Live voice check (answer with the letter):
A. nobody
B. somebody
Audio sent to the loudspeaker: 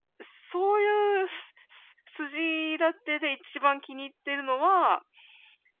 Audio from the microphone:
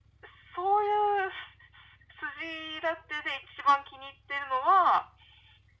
A